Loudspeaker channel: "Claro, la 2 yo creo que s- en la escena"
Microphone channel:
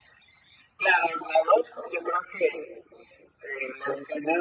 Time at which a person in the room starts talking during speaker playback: none

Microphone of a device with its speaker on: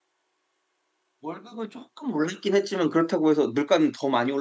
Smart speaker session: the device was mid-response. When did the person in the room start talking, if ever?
1.2 s

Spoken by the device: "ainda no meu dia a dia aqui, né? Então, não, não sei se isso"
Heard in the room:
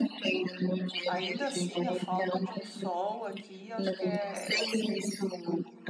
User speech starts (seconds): 1.1 s

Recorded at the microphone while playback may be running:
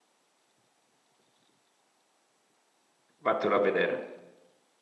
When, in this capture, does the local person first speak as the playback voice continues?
3.2 s

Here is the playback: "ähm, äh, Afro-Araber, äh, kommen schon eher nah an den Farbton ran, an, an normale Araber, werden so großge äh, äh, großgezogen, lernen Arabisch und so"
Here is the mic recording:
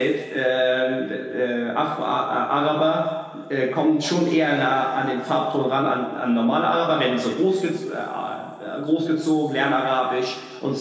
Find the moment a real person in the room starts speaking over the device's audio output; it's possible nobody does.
none

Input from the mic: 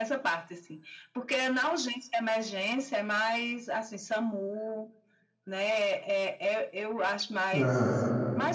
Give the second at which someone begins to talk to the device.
7.5 s

